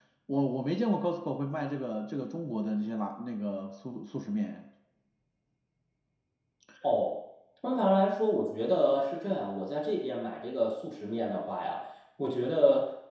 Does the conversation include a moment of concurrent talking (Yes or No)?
No